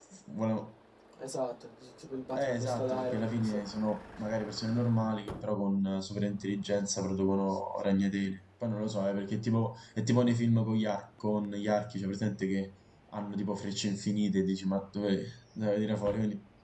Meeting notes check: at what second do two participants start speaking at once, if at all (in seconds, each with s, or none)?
2.4 s